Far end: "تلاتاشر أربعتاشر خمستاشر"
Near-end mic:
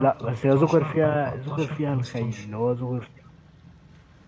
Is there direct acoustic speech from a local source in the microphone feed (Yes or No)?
Yes